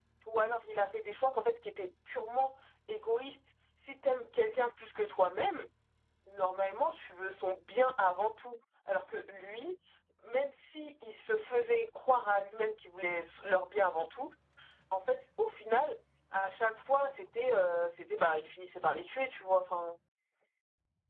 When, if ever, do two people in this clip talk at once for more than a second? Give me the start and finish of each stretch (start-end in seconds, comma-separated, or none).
none